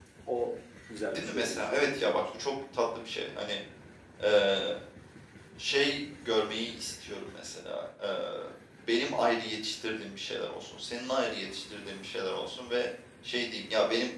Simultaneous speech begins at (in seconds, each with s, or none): 1.0 s